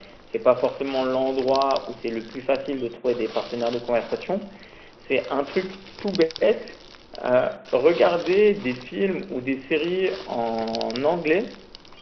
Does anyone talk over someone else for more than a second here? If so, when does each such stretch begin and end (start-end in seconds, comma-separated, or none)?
none